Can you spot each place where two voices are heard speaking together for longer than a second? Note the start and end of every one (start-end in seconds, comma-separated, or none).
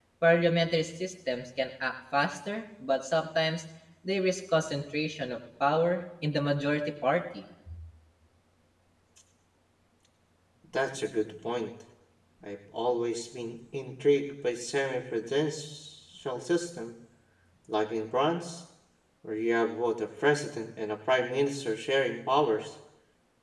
none